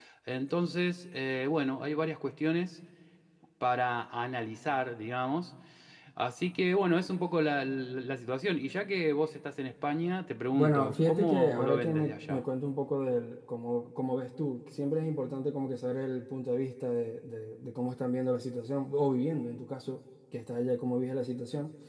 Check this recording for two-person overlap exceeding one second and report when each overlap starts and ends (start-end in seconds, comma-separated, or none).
10.5-12.4